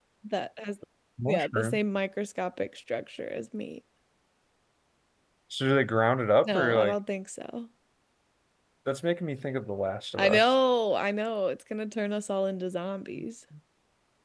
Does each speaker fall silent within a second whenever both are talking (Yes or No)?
Yes